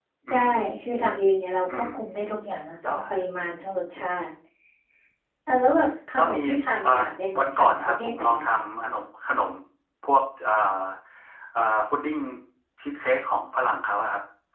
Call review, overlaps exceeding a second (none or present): present